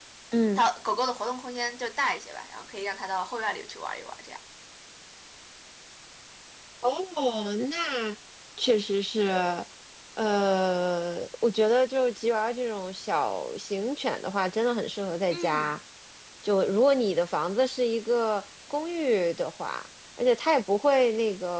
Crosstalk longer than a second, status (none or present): none